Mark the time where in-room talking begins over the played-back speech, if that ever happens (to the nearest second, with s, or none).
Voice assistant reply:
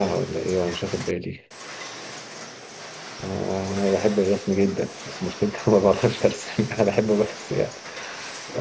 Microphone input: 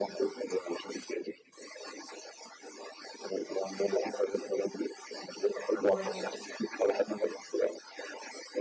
6 s